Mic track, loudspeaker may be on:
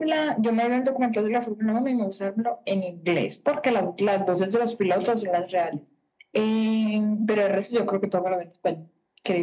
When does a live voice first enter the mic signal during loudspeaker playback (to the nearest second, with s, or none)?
none